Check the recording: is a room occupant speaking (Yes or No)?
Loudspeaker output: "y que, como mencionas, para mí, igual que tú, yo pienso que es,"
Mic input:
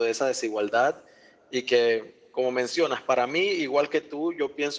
No